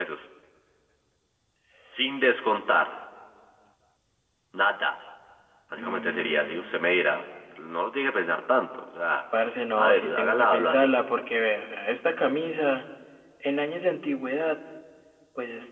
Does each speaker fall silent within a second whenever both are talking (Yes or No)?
No